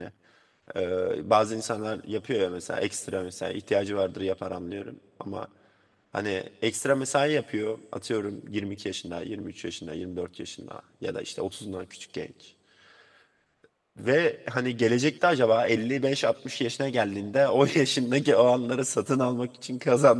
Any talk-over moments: No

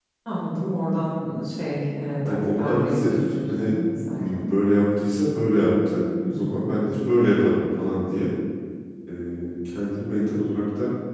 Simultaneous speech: Yes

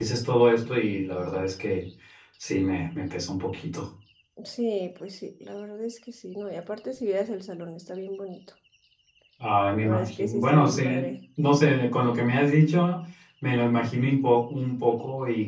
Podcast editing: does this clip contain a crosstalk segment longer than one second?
Yes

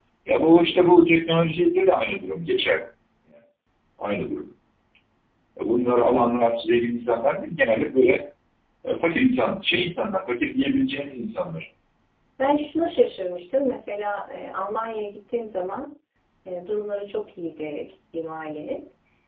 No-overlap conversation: Yes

